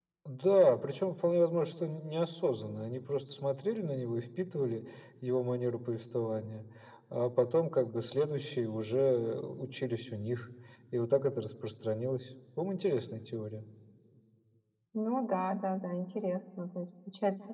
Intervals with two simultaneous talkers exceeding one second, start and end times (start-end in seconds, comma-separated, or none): none